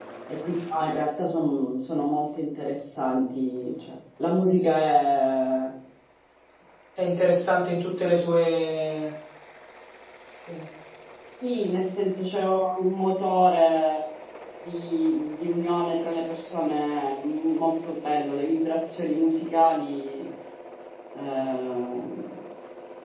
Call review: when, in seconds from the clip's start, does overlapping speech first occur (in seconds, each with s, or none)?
none